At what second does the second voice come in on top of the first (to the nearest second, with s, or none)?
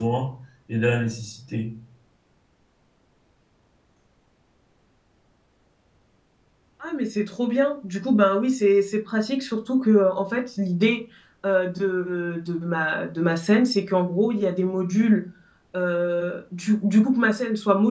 none